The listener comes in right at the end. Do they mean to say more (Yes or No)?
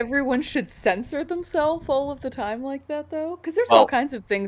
No